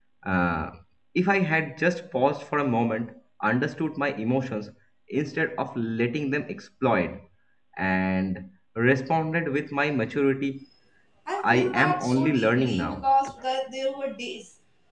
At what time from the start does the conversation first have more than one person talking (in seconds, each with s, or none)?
11.4 s